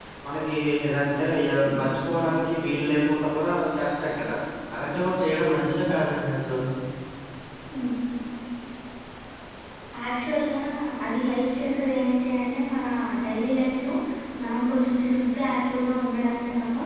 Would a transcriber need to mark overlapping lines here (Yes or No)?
No